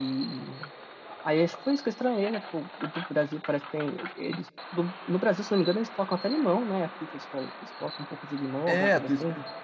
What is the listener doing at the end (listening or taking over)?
taking over